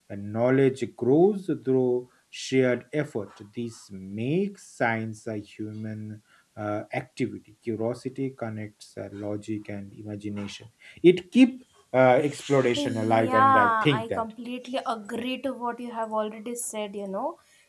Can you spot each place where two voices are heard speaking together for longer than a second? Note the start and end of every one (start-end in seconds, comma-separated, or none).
12.8-14.2